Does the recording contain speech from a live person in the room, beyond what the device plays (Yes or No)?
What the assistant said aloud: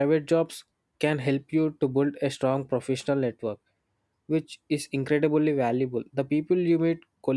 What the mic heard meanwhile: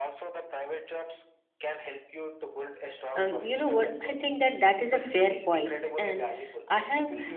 Yes